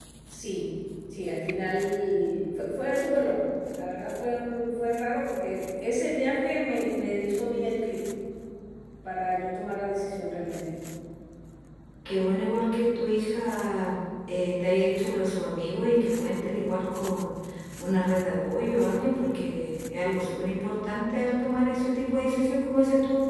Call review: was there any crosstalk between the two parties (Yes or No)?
No